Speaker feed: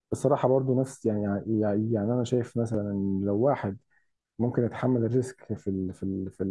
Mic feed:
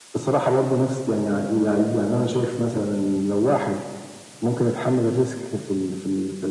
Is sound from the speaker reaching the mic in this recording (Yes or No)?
Yes